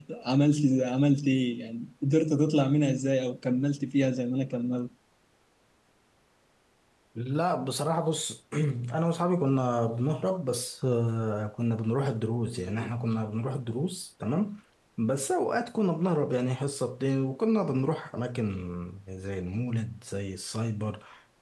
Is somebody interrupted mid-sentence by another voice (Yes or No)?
No